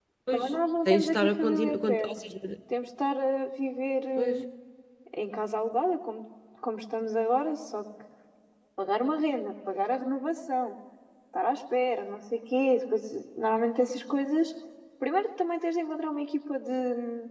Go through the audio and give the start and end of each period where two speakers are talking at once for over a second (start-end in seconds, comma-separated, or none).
0.8-2.1